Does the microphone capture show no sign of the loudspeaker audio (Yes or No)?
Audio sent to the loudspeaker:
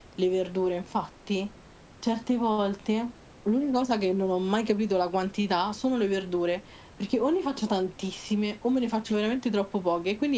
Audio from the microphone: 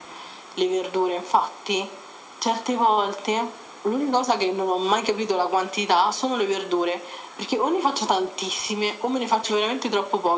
No